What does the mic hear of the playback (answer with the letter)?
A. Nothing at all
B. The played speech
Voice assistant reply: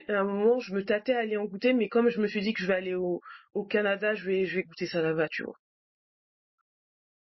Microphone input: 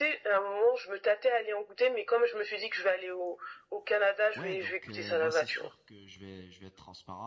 B